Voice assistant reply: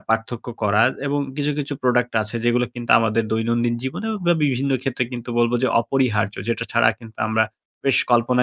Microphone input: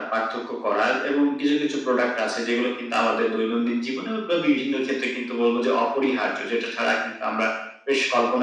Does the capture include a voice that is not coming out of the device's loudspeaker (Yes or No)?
No